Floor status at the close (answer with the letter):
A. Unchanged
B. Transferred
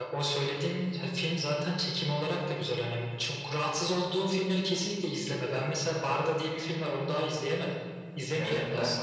B